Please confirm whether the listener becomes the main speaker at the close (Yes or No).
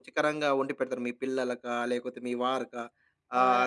No